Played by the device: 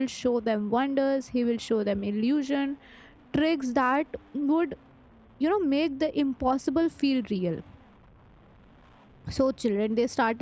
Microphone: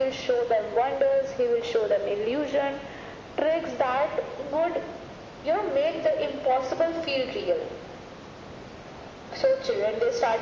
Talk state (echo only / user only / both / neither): echo only